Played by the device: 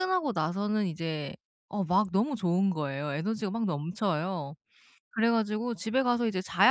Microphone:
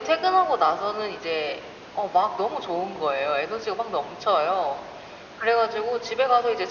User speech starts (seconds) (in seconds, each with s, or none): none